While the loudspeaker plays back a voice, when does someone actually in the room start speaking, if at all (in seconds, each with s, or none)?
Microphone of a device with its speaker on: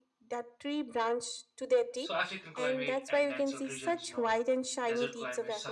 2.0 s